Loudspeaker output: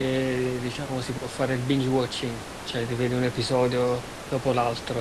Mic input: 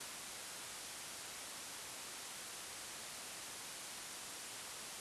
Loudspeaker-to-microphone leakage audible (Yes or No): No